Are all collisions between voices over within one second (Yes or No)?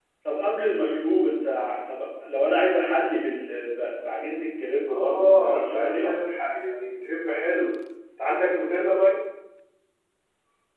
No